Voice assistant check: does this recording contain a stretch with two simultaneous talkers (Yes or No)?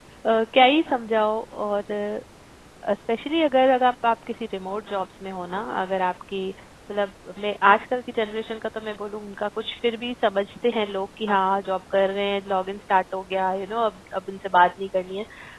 No